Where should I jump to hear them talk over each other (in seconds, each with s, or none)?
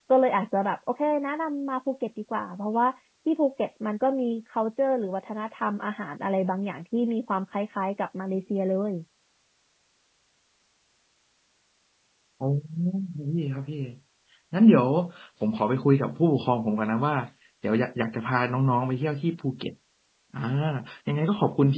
none